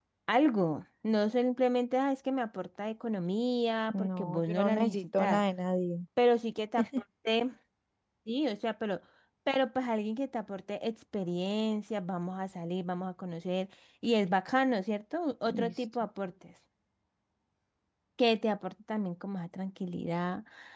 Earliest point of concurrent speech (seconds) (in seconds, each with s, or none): 4.0 s